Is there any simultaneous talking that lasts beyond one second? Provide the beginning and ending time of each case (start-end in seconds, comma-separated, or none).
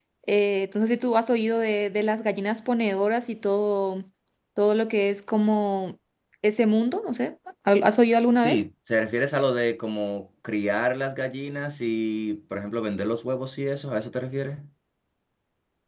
none